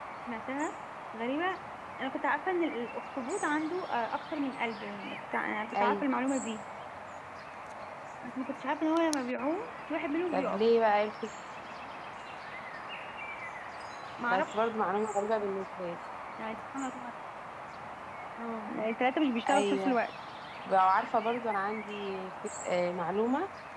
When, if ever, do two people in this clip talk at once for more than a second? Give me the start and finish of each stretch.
none

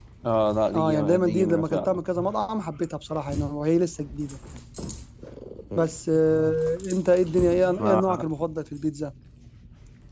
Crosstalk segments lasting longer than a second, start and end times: 0.7-2.0

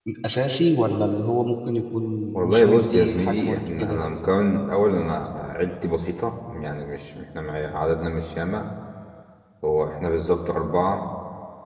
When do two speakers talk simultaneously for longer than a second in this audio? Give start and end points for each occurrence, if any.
2.4-4.0

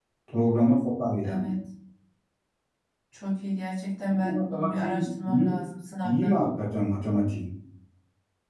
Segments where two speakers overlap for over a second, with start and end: 4.1-5.6

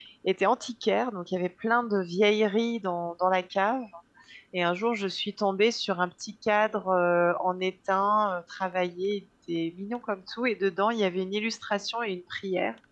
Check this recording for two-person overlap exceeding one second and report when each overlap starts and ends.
none

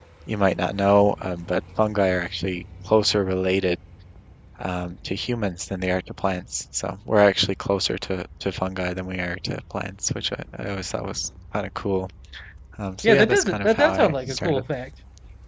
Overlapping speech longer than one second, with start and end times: 13.0-14.6

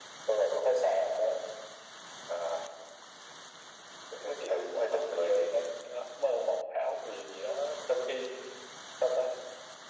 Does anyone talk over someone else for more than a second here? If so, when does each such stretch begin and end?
4.3-5.5

